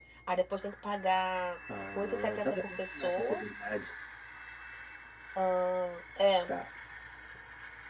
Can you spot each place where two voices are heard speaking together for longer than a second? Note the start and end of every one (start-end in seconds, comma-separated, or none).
1.9-3.4